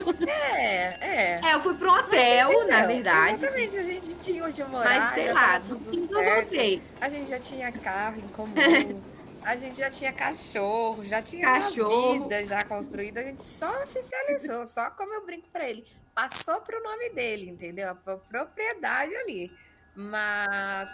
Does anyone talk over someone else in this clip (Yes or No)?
Yes